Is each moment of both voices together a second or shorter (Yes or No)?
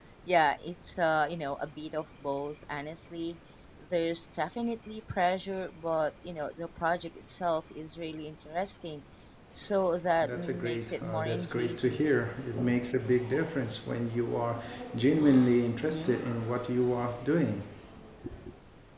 No